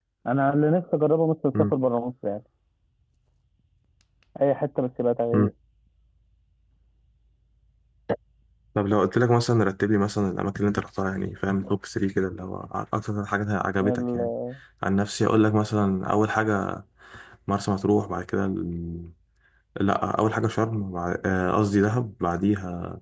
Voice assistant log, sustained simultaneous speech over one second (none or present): none